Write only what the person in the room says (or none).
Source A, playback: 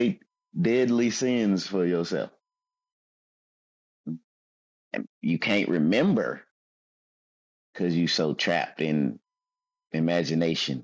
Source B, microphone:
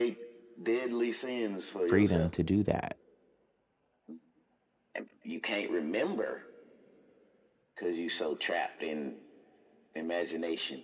freedom to do that